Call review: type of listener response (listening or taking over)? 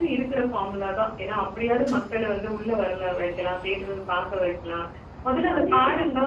listening